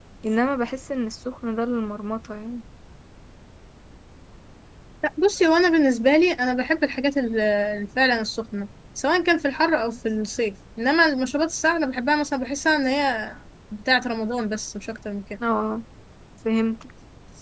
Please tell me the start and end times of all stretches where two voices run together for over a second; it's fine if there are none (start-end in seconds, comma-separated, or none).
none